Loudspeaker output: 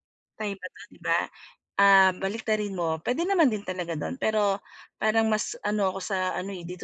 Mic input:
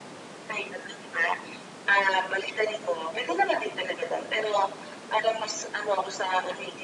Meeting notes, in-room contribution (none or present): none